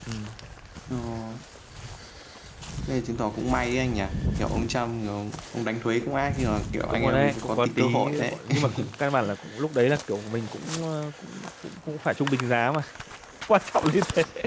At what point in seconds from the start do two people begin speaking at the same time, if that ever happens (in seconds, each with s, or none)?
6.9 s